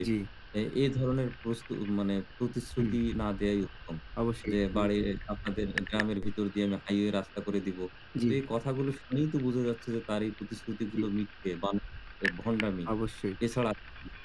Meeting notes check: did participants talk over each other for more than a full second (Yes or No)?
No